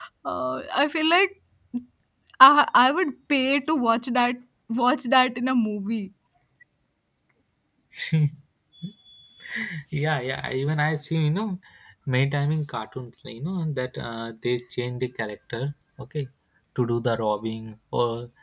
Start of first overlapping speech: none

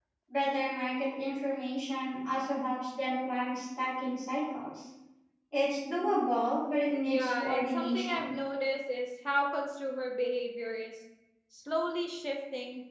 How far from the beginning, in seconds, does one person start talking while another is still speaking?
7 s

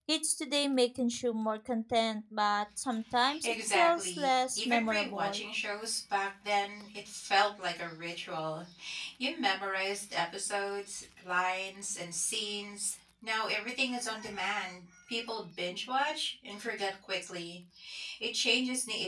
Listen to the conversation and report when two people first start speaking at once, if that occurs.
3 s

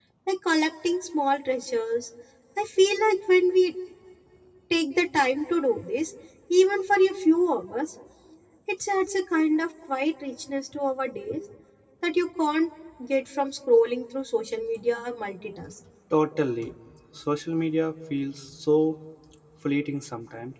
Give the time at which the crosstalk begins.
none

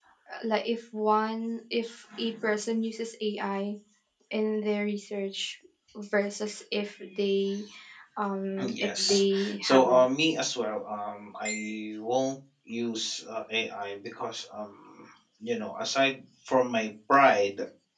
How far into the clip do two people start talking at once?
9 s

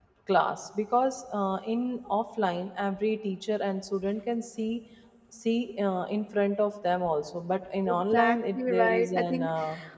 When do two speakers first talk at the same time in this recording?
8 s

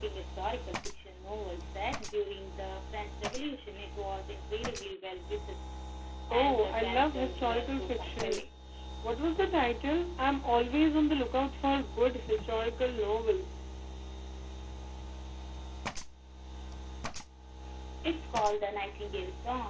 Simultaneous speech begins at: 6 s

